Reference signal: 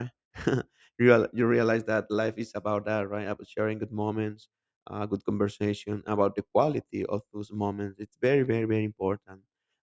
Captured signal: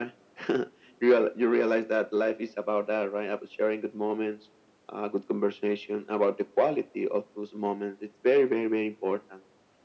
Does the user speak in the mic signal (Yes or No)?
No